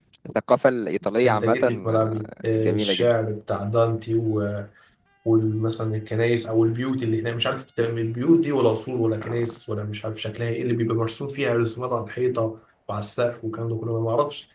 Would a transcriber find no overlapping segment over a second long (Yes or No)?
No